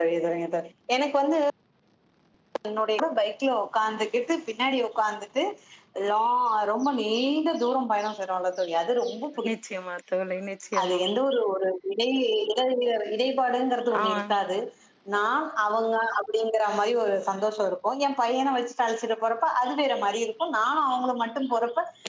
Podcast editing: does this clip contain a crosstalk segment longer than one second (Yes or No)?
No